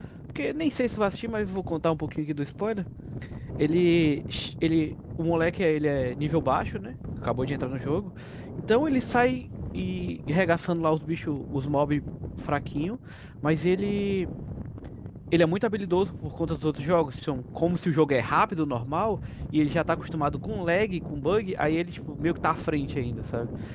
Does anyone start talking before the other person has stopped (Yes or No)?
No